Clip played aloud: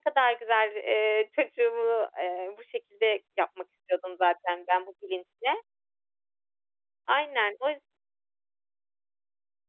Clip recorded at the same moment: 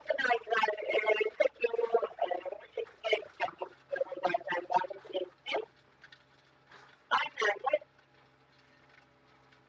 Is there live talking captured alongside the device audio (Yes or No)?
No